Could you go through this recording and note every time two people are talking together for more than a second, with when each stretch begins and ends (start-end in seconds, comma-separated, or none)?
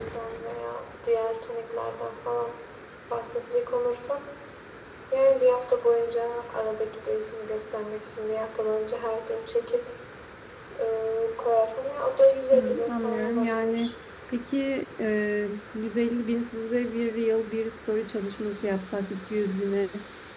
12.5-13.9